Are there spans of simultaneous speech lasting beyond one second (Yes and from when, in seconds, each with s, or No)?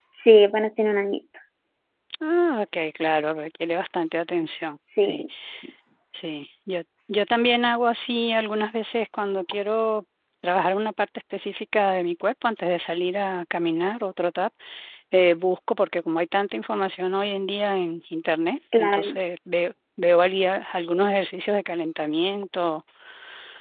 No